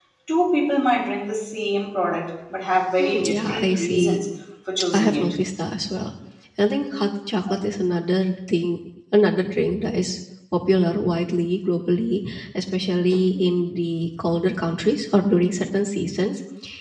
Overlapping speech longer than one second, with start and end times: 3.0-4.2

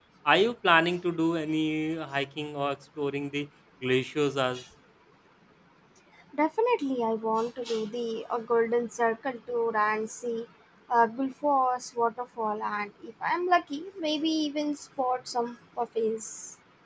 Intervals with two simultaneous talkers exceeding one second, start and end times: none

